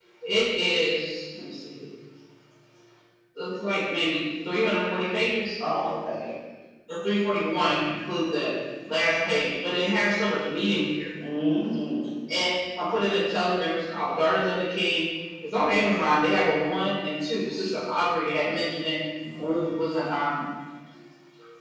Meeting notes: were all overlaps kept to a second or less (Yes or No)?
Yes